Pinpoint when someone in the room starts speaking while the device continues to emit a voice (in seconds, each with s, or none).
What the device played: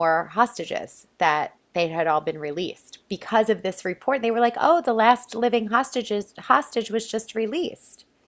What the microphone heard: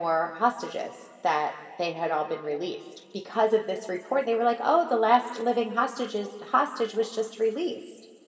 none